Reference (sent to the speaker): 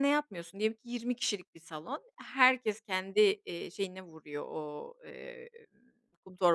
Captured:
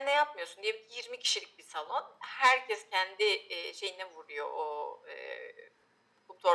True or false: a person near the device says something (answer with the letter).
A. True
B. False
B